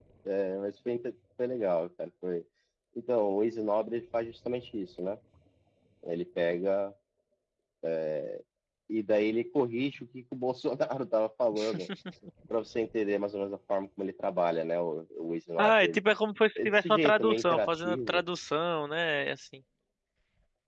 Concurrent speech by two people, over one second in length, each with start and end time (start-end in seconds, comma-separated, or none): 16.6-18.2